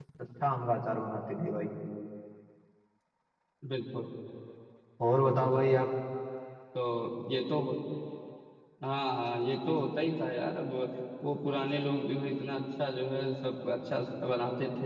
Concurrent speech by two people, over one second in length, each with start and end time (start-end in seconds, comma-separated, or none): none